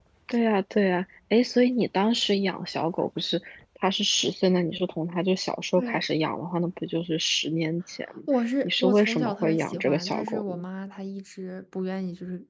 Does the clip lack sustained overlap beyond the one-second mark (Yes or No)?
No